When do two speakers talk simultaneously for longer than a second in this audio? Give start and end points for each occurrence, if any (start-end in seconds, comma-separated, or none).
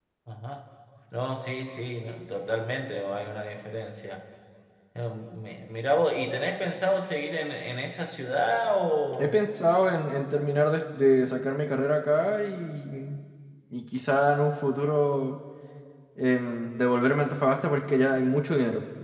none